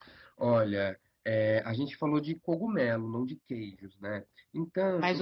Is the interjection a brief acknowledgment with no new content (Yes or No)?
No